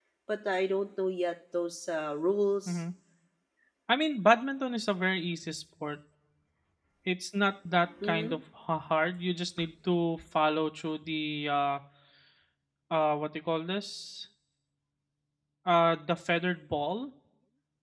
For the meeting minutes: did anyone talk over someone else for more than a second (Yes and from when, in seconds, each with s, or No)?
No